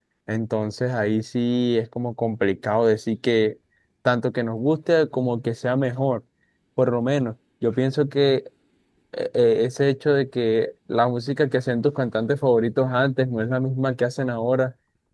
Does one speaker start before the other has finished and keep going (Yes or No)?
No